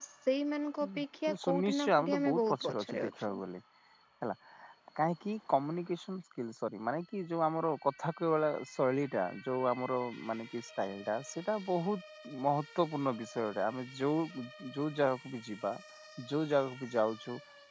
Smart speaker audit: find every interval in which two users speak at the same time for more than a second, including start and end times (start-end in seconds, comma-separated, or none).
1.4-3.4